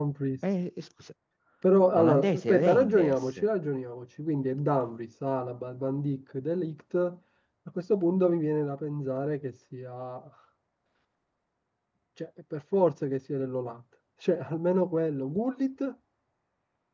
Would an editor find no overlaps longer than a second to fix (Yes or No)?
No